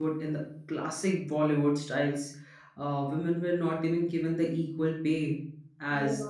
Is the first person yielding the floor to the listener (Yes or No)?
Yes